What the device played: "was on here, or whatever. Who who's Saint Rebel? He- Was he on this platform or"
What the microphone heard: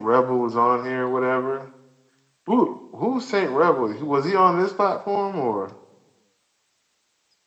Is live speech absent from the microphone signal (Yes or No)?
Yes